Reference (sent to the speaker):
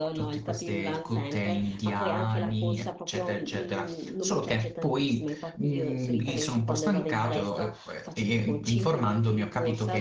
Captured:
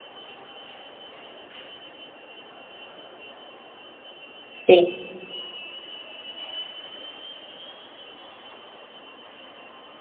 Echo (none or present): none